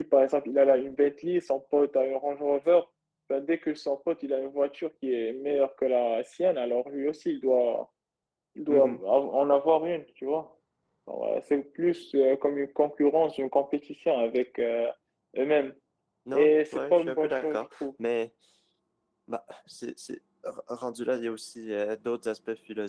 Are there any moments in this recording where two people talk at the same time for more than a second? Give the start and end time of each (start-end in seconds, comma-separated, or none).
16.3-17.9